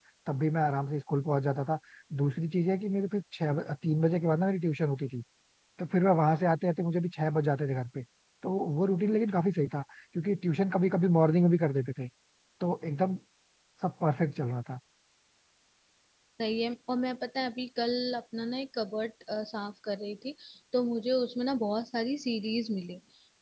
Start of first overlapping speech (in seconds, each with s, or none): none